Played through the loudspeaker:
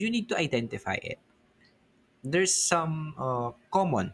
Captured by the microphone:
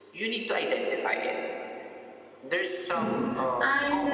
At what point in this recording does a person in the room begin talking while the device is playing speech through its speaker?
2.9 s

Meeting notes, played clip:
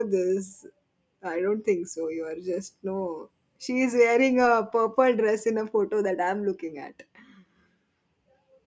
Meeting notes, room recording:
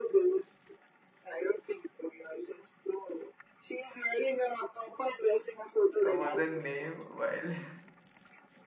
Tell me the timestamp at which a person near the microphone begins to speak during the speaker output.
5.9 s

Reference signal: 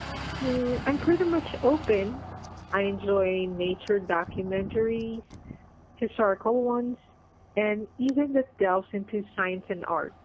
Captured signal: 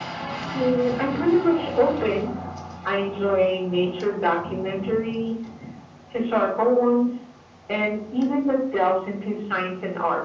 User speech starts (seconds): none

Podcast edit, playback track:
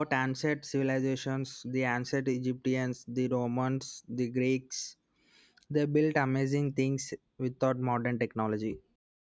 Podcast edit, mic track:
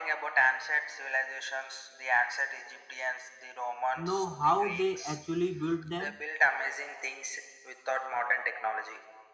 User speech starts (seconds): 3.9 s

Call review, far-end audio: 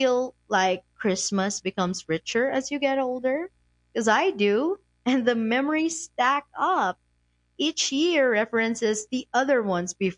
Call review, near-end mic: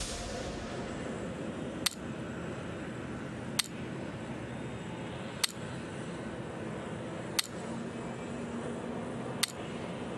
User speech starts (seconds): none

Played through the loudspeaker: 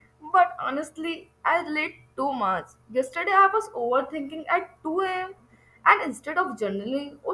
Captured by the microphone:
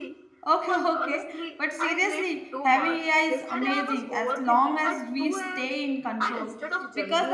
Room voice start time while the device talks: 0.5 s

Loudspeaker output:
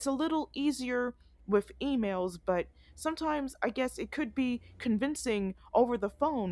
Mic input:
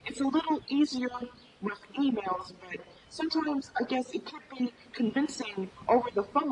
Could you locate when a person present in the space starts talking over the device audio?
none

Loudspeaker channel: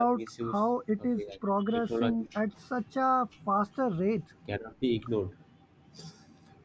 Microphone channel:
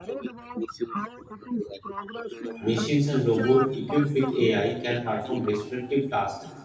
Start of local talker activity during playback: 2.6 s

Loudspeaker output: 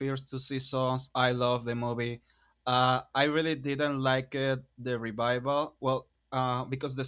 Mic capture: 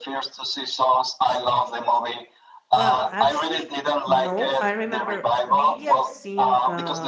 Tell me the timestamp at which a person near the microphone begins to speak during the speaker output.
2.7 s

